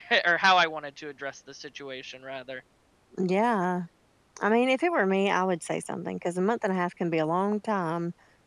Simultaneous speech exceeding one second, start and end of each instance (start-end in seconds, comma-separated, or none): none